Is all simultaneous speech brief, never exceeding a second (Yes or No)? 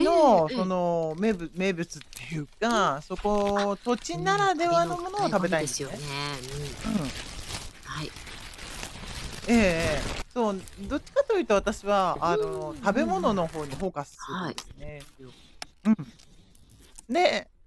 No